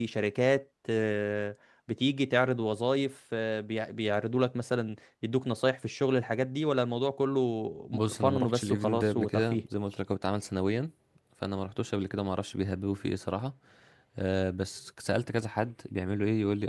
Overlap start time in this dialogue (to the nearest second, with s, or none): 8 s